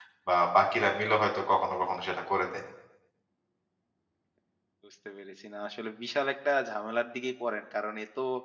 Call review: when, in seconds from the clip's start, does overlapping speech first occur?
none

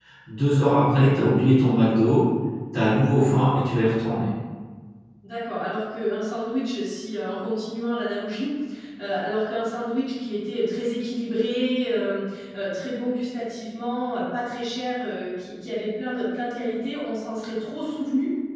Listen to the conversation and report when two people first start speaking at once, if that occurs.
none

